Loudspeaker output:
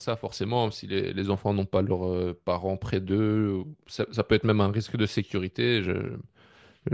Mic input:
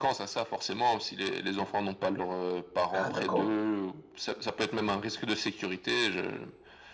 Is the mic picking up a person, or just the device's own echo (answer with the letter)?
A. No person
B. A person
B